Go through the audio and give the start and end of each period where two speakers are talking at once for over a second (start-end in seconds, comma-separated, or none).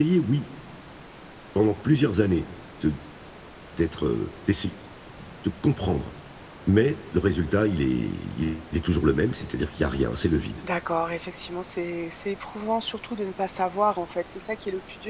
none